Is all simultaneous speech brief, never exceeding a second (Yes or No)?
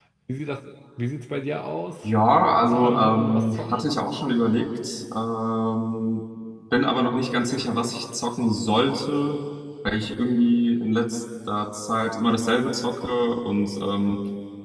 No